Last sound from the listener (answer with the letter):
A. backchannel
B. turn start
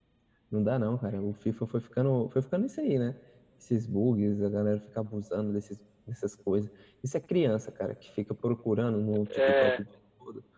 A